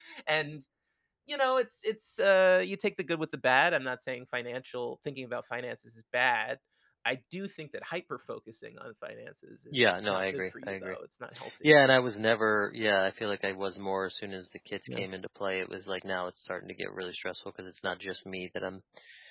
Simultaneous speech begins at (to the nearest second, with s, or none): 10 s